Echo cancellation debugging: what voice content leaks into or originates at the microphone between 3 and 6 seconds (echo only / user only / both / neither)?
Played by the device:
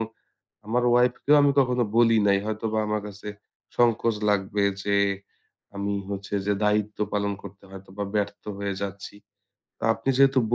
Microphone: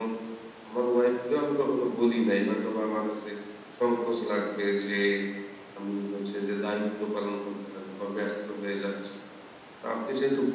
echo only